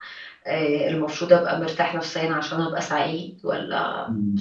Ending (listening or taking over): taking over